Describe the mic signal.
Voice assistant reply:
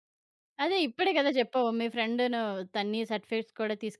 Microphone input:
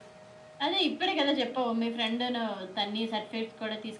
echo only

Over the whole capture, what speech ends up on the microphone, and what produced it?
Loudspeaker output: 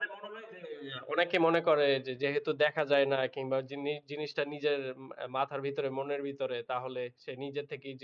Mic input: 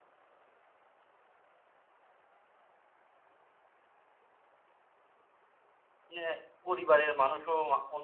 user only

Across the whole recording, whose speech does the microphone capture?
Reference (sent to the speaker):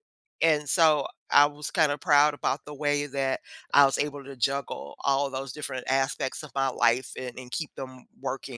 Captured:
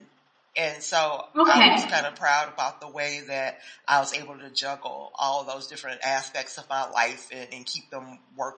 both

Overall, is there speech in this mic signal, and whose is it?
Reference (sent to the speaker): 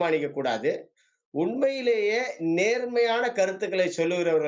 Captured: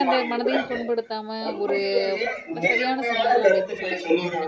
both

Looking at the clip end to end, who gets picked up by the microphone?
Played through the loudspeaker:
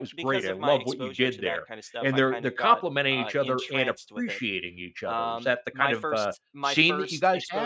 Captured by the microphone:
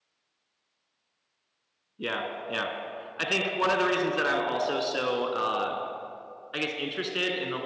user only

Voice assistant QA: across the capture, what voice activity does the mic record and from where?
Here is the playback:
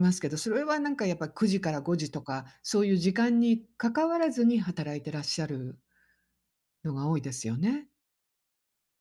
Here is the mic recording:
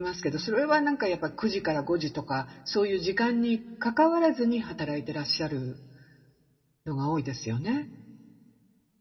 echo only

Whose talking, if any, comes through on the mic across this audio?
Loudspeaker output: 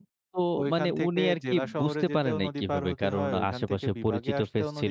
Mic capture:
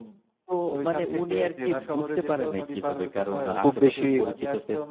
both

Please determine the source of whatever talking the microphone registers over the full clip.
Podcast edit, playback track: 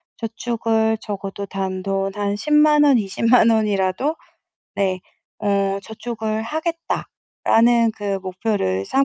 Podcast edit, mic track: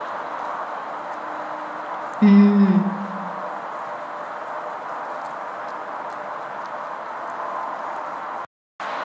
user only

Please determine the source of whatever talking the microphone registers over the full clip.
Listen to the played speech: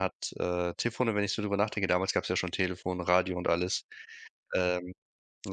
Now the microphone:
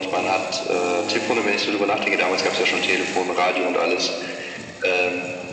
echo only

